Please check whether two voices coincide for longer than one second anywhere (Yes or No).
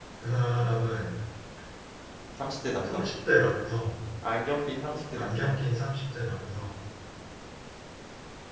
No